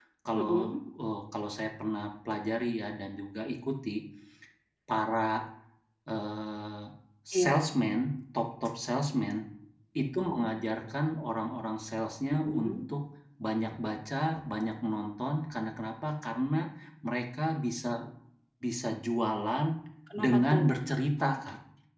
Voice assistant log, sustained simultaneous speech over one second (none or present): none